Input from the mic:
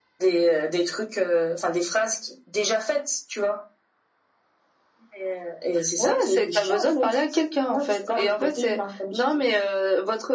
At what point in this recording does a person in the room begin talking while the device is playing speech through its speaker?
none

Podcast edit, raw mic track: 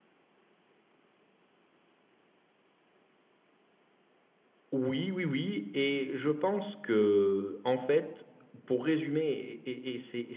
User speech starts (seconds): 4.7 s

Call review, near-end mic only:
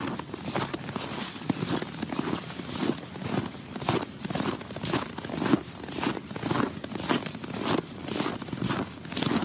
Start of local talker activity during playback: none

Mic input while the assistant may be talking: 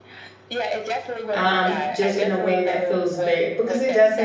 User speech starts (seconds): 1.3 s

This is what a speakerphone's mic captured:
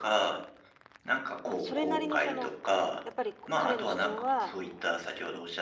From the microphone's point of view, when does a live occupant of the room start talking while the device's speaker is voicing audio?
1.4 s

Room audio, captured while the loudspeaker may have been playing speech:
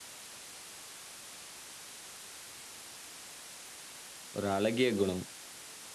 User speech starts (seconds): 4.4 s

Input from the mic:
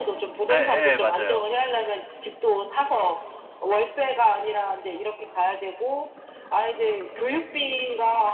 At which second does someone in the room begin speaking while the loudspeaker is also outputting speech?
0.5 s

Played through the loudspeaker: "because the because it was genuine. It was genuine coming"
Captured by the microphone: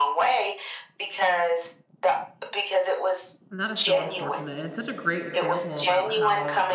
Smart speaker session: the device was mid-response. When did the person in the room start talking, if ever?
3.5 s

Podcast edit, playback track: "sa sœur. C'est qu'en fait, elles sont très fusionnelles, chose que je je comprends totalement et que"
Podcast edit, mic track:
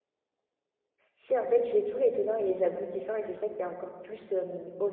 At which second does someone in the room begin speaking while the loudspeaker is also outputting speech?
1.1 s

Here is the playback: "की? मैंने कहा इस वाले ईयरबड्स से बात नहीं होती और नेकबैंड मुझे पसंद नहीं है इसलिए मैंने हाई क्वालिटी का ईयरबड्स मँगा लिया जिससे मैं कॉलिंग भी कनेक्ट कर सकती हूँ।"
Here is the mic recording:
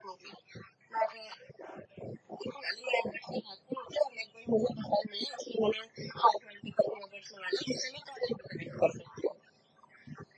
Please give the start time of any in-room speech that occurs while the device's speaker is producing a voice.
none

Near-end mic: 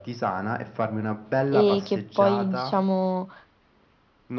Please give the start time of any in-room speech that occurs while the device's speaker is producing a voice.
1.4 s

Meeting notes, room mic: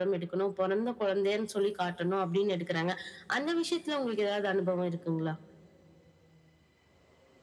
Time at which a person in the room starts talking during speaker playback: none

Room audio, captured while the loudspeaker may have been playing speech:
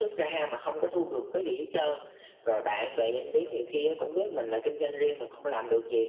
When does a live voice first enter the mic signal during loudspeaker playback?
none

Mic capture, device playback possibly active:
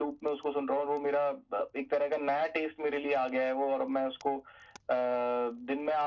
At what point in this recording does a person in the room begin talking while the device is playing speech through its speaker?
none

